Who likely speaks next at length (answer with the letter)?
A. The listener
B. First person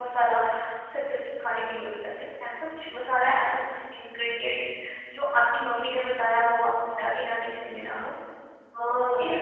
A